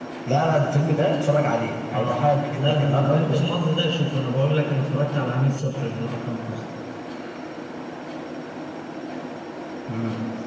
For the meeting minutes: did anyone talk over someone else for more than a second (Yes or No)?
Yes